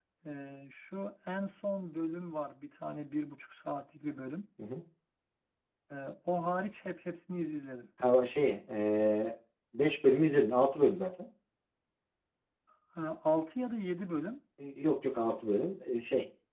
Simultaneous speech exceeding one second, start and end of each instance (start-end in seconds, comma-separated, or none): none